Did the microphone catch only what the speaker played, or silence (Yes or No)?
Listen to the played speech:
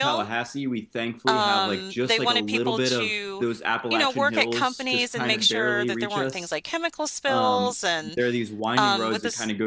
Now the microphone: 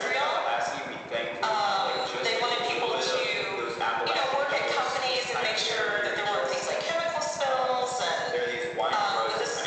Yes